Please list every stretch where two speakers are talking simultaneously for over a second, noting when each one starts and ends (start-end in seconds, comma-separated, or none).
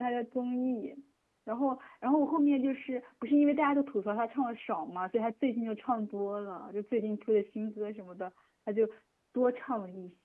none